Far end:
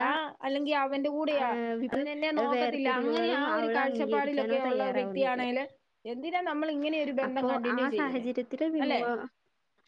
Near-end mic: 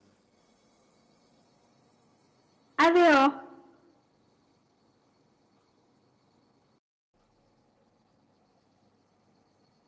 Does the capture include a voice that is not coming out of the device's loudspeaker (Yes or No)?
Yes